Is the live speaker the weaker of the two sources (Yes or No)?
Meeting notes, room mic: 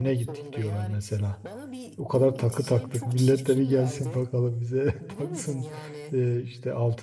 No